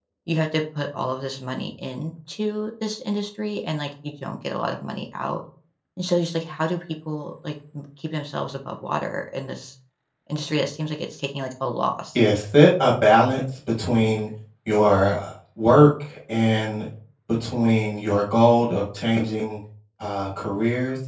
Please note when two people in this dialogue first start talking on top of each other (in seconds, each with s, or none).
none